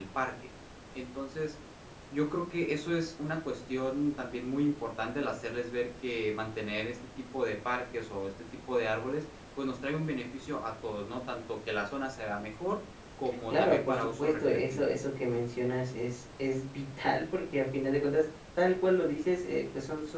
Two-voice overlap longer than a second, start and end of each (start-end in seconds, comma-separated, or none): 13.5-14.8